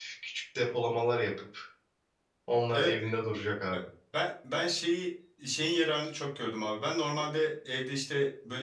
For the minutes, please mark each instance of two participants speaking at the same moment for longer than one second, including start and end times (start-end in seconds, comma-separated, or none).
none